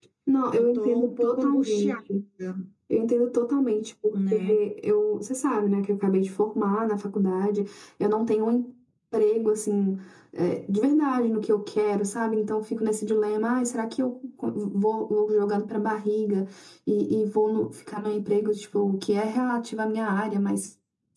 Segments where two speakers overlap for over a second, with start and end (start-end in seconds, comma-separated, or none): 0.5-2.0